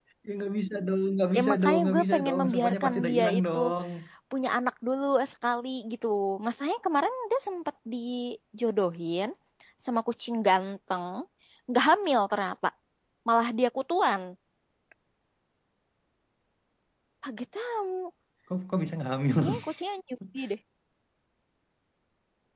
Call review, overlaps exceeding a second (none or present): present